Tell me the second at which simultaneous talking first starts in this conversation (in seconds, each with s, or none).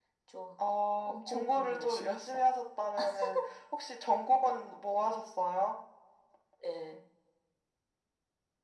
1.1 s